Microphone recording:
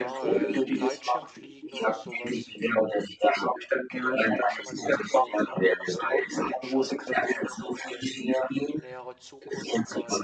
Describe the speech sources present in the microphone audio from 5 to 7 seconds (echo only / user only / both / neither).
both